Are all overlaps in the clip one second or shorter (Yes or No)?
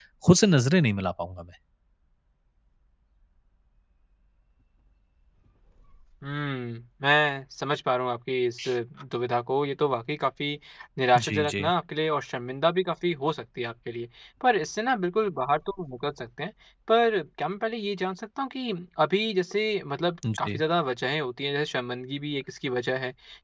Yes